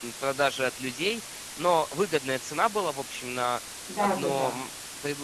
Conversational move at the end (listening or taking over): listening